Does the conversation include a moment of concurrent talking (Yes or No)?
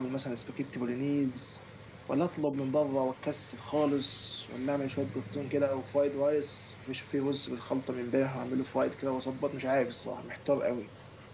No